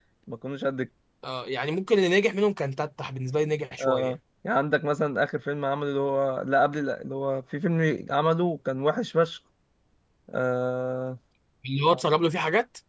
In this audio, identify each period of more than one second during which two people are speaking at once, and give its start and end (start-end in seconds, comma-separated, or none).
none